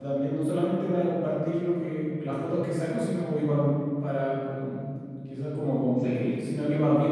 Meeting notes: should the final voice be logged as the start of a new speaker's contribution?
No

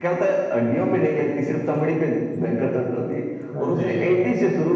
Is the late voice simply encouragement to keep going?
Yes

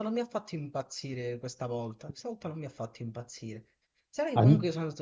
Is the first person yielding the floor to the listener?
No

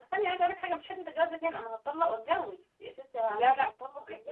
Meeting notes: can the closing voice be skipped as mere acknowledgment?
No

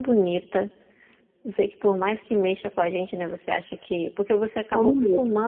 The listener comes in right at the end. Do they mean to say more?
No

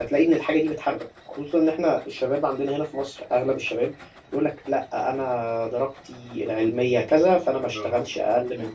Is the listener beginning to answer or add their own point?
No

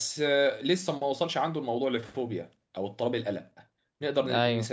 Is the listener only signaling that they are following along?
Yes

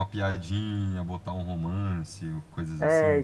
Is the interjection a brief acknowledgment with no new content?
No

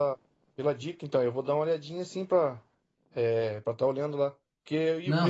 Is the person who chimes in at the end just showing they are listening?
Yes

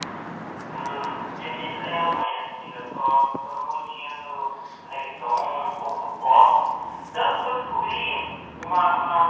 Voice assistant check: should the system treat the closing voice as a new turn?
No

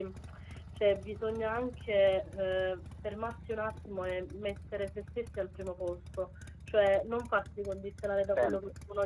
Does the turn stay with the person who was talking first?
Yes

